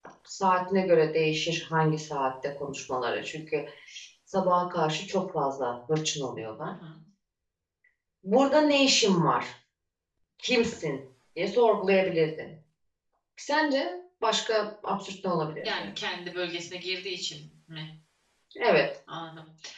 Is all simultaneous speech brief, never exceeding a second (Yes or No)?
Yes